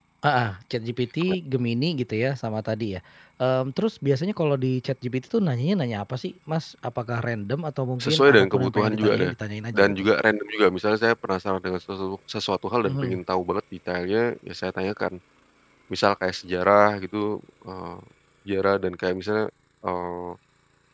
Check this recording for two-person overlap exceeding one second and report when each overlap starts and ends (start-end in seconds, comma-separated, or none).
8.0-9.3